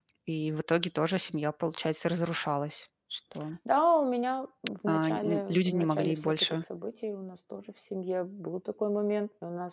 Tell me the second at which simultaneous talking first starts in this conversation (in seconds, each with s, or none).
4.9 s